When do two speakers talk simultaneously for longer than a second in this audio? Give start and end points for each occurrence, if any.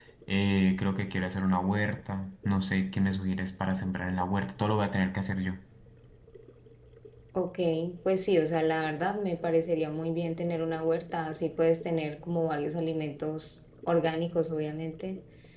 none

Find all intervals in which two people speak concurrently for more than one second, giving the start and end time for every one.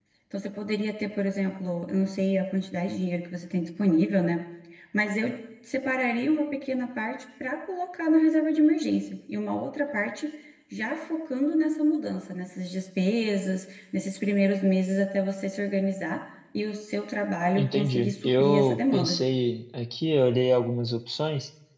17.6-19.2

